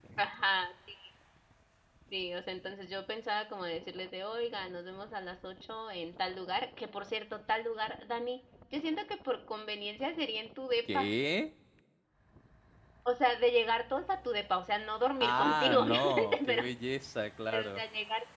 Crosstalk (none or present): present